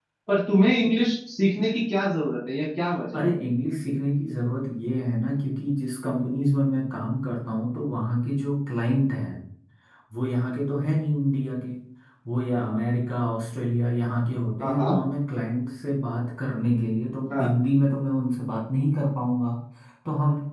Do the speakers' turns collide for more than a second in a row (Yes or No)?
No